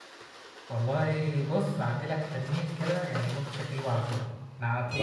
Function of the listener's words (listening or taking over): listening